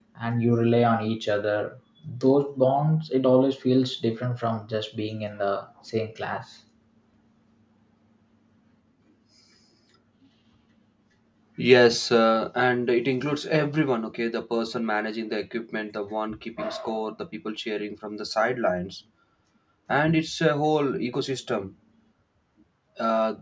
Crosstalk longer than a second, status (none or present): none